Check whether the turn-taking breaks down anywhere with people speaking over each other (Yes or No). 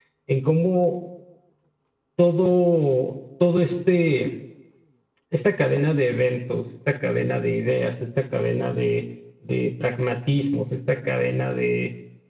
No